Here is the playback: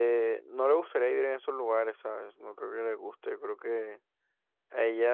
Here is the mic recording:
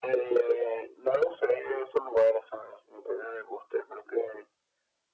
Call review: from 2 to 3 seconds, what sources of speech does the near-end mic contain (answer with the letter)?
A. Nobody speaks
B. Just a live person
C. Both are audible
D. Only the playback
D